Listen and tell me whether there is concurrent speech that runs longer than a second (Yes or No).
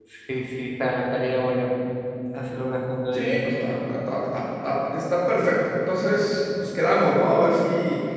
No